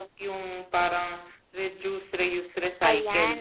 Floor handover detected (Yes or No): Yes